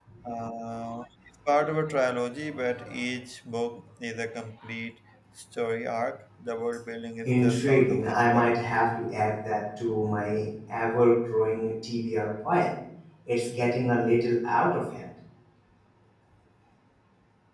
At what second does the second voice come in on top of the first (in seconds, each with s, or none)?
7.2 s